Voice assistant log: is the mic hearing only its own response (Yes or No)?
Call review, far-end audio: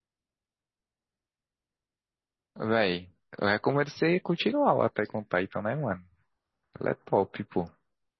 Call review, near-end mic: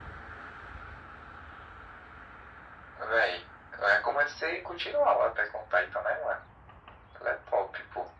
Yes